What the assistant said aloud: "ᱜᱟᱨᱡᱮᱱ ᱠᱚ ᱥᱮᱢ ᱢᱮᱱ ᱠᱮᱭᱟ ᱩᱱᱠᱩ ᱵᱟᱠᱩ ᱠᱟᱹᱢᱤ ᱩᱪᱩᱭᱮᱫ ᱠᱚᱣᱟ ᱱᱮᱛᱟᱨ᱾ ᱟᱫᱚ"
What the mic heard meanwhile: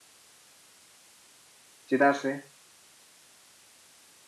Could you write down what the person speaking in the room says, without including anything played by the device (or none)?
ᱪᱮᱫᱟᱜ ᱥᱮ